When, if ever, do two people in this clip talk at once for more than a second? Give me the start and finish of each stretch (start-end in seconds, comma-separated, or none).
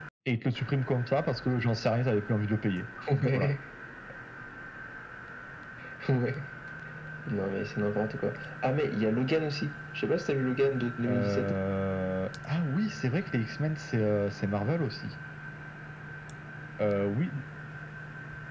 none